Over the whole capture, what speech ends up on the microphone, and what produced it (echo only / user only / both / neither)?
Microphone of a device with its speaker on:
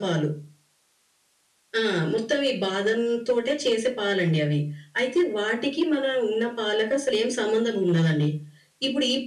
echo only